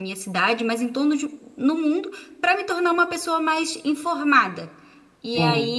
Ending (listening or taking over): listening